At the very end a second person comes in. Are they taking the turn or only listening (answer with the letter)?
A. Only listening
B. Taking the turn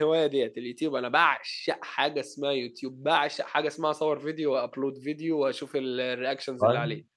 B